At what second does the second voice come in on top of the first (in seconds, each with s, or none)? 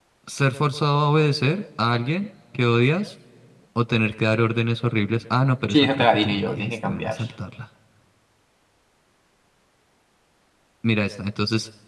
5.7 s